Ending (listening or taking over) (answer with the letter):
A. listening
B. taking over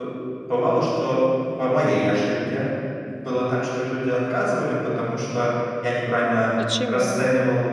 A